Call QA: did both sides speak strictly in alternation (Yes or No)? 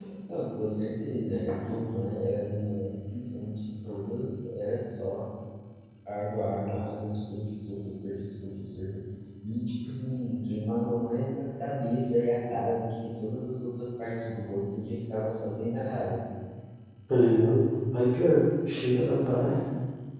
Yes